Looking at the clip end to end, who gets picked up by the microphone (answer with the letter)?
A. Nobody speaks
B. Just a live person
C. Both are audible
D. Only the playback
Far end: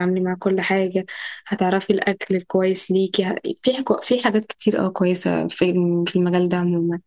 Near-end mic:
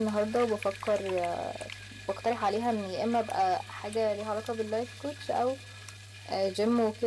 B